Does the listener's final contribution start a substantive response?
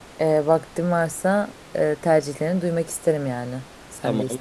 Yes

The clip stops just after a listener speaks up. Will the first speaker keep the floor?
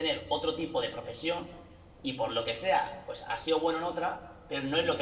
Yes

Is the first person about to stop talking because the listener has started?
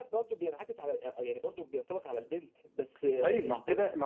Yes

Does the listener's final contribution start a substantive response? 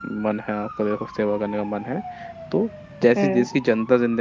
No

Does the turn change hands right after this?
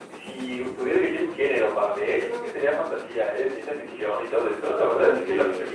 No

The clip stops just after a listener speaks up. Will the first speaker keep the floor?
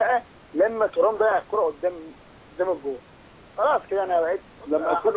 No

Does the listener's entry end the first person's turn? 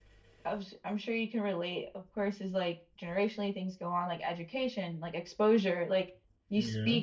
No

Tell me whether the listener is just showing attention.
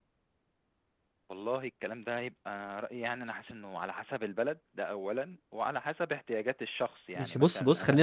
No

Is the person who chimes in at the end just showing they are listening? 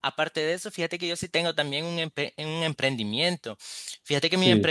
Yes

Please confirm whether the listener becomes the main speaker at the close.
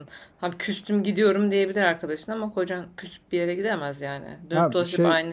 Yes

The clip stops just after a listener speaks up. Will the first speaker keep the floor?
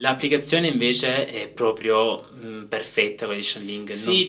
No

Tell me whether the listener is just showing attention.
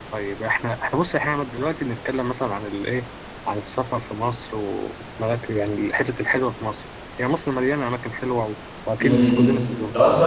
No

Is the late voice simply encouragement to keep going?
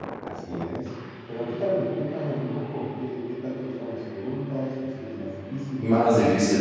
No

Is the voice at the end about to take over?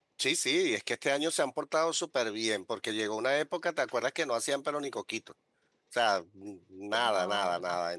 No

